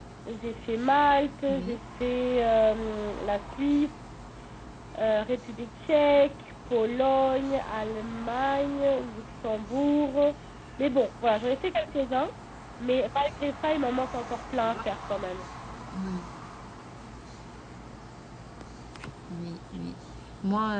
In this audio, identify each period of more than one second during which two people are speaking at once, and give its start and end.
none

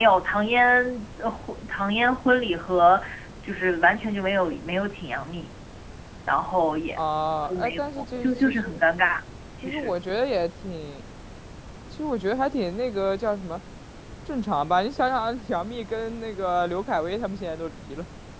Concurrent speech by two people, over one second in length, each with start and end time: 7.4-8.8

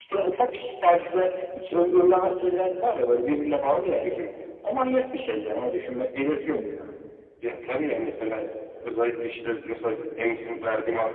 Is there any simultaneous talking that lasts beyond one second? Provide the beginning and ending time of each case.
none

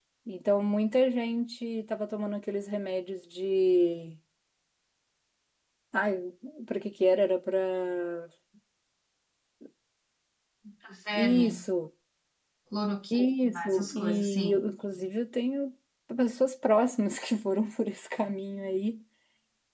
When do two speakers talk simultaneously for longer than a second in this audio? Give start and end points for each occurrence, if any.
13.1-14.6

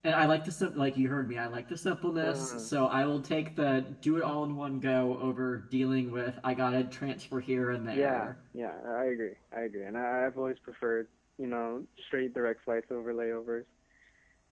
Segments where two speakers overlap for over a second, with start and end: none

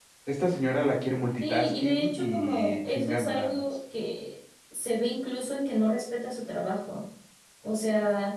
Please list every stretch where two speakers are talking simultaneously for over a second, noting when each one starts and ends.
1.4-3.6

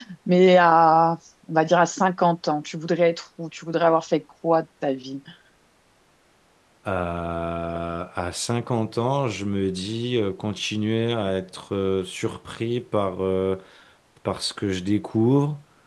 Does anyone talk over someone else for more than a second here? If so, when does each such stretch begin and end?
none

